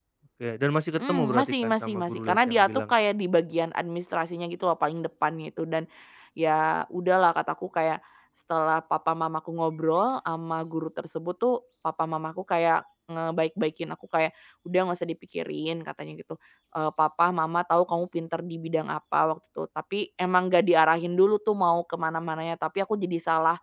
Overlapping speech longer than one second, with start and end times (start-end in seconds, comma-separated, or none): 1.0-2.9